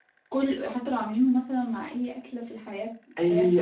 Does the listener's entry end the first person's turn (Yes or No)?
Yes